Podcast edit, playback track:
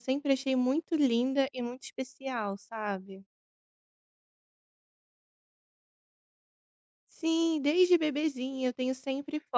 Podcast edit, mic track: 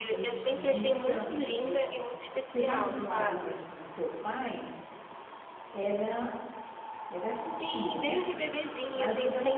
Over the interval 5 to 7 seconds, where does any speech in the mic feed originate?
user only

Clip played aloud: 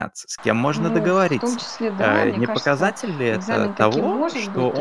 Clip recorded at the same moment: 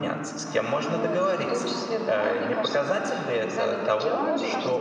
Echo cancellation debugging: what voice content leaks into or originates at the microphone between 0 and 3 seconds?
echo only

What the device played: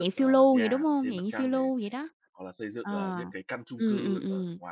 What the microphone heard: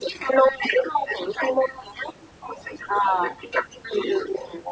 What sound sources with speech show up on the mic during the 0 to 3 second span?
echo only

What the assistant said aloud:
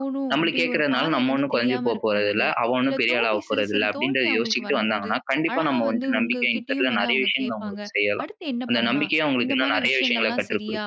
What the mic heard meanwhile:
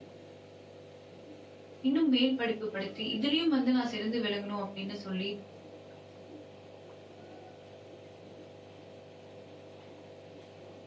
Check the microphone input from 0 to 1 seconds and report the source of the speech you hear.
neither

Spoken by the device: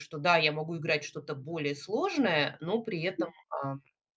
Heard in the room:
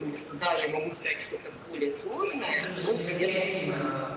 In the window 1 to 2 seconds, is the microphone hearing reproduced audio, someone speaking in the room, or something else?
echo only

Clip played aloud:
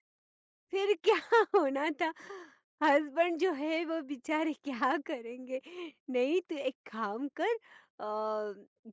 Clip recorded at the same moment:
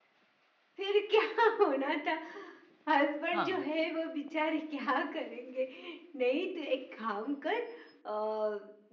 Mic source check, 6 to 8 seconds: echo only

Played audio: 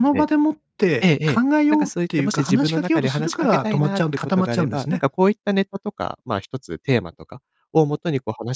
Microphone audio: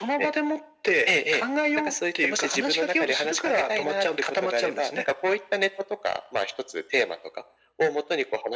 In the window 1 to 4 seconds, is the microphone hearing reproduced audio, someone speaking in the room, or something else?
echo only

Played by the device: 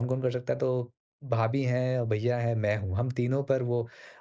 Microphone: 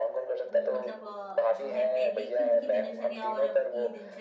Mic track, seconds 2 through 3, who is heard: both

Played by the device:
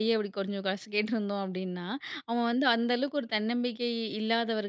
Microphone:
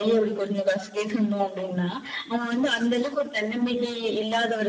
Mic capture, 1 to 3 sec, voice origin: echo only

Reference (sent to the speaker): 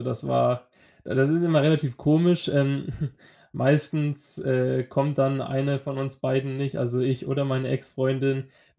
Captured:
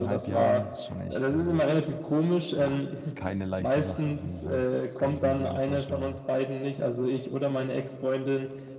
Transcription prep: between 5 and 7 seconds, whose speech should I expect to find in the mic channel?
both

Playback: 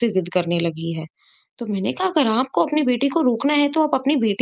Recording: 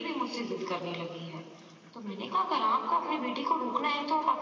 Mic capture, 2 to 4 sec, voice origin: echo only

